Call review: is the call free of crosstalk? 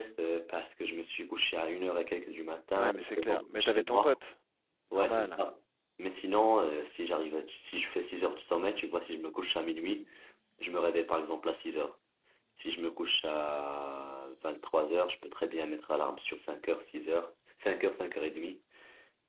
No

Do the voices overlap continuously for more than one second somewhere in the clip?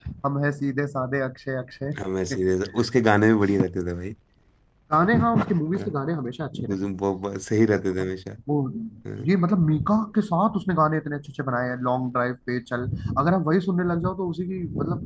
No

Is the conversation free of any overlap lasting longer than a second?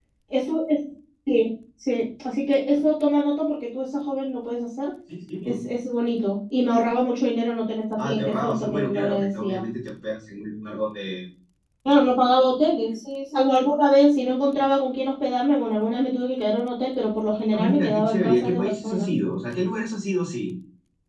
No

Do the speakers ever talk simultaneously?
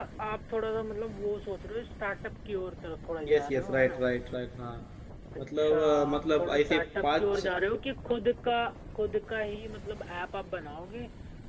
Yes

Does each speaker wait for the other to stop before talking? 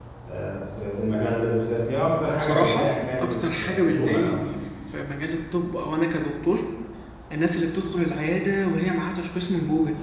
No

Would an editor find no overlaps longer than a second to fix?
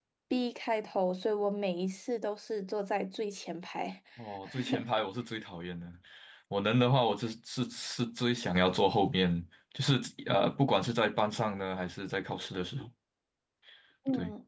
Yes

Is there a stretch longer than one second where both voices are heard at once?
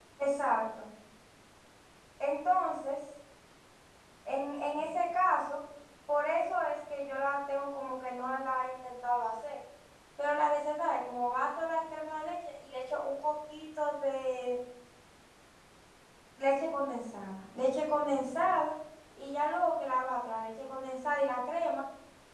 No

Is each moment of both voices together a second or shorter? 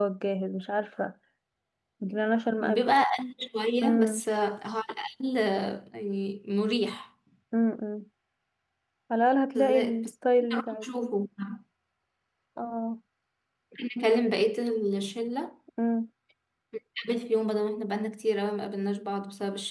Yes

